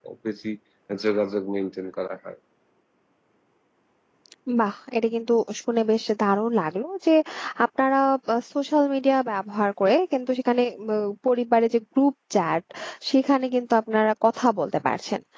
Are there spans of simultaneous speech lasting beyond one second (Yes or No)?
No